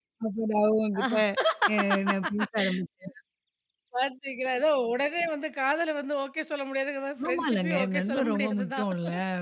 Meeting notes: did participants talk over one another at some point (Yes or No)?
Yes